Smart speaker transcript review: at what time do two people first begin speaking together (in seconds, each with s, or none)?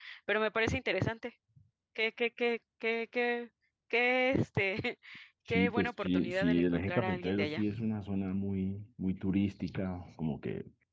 5.5 s